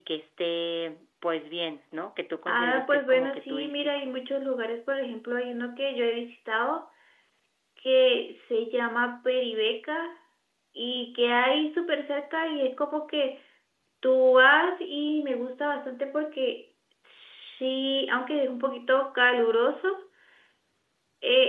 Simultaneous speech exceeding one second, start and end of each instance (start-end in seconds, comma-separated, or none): 2.5-3.9